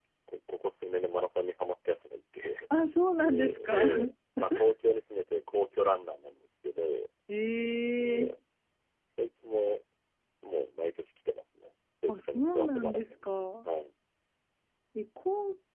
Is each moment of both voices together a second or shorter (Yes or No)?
No